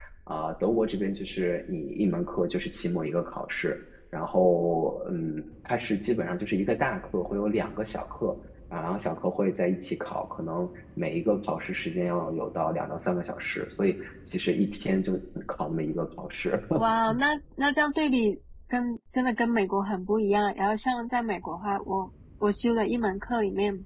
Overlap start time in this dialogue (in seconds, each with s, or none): none